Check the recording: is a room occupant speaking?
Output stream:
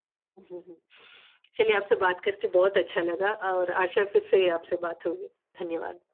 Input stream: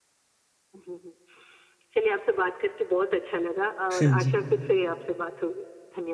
Yes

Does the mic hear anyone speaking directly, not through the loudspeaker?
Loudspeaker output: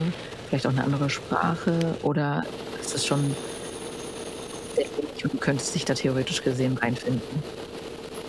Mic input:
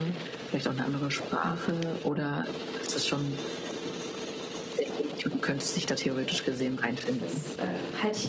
Yes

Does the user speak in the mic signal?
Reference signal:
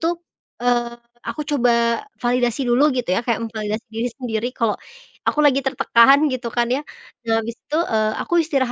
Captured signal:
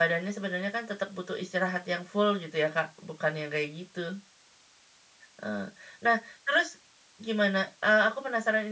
Yes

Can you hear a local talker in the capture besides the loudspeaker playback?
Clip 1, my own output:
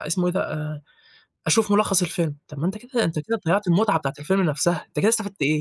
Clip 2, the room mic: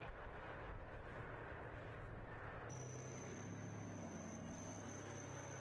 No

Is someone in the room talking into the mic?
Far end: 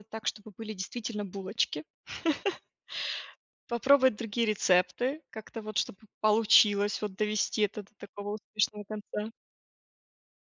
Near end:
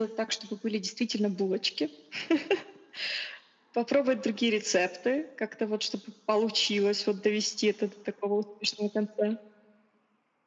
No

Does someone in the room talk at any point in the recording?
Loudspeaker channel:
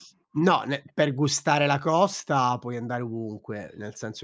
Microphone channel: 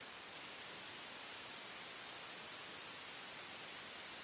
No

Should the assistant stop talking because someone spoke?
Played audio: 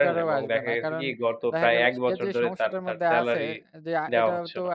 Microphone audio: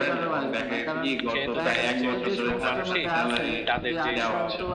Yes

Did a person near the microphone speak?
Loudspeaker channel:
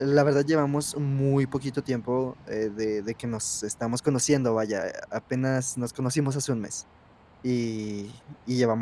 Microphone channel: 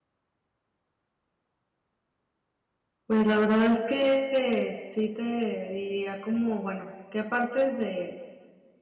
Yes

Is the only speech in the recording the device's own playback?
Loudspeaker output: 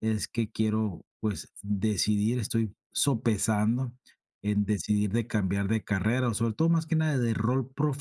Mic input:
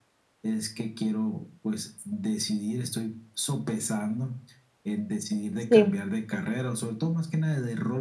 No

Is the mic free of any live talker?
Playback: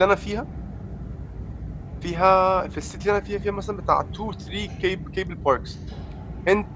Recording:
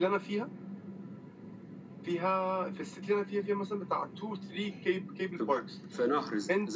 No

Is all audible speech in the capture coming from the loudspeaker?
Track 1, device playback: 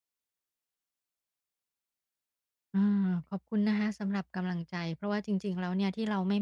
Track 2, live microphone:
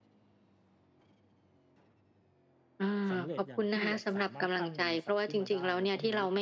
No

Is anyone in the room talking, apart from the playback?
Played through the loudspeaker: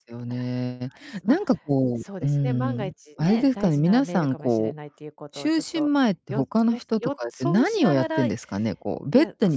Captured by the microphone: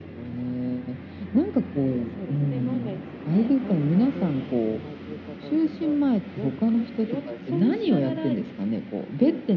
No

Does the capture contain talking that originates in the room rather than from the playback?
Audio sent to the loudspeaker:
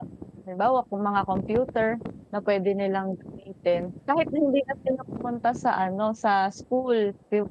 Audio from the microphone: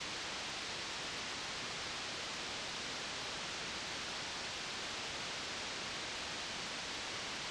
No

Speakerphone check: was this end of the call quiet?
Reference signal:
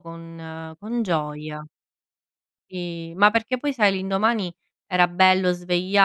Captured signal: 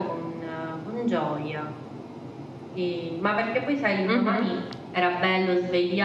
No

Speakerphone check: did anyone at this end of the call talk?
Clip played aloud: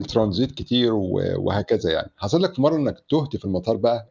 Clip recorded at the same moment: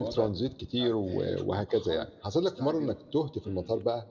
Yes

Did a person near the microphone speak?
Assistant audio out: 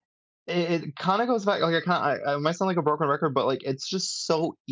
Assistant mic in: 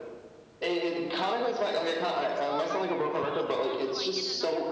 Yes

